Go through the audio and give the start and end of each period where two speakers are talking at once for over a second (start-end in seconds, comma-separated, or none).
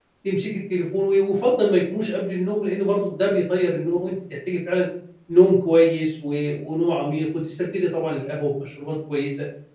none